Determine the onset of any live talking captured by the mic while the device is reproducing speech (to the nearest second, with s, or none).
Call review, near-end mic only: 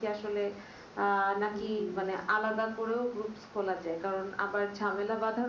2 s